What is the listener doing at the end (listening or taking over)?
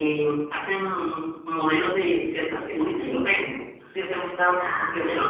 listening